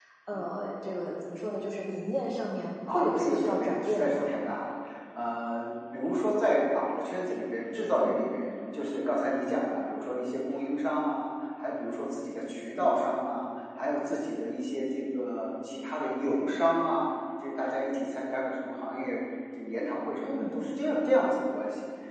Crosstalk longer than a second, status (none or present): present